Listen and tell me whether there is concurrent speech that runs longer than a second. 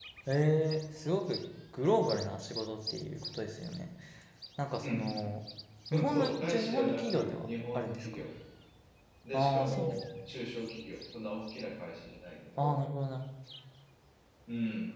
Yes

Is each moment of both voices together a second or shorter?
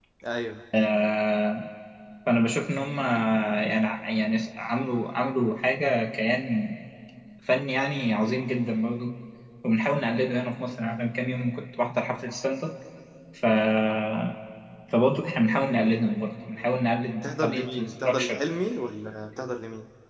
No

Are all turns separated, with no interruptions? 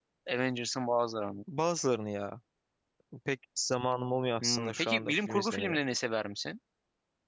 No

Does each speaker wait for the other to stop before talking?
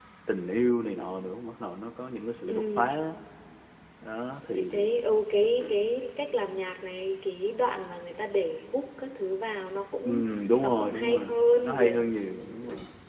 No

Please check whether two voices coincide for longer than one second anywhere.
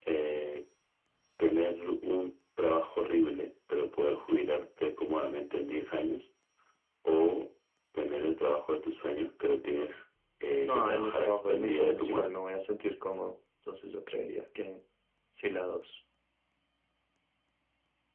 Yes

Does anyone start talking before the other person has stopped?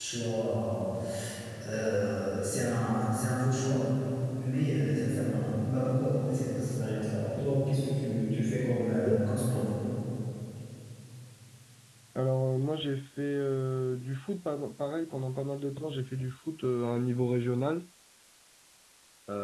No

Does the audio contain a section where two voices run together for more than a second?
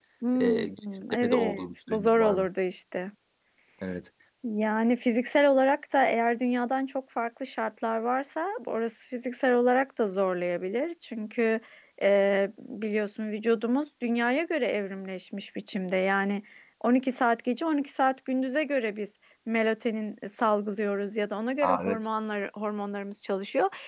Yes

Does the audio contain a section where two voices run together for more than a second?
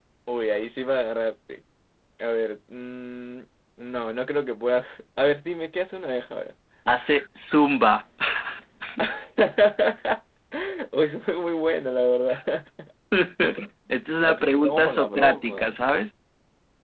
Yes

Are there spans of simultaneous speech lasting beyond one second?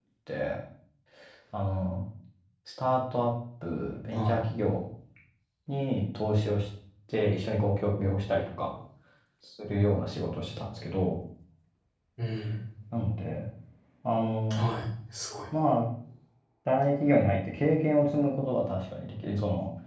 No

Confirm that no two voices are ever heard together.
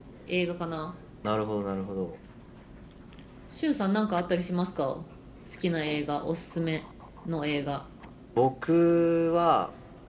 Yes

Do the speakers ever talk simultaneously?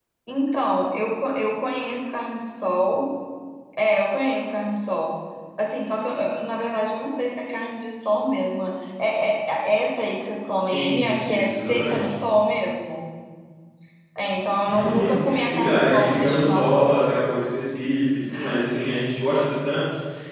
Yes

